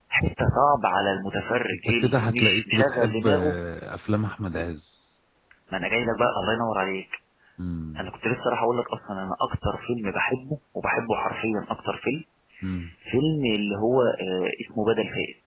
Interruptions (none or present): present